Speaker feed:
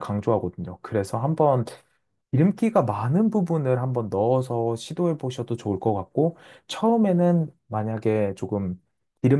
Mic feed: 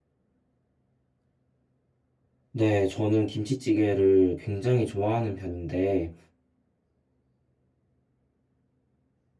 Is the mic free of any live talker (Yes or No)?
No